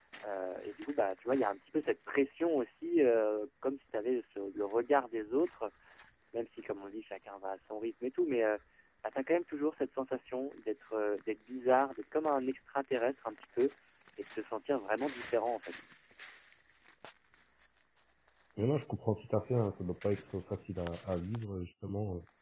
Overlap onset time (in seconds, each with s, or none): none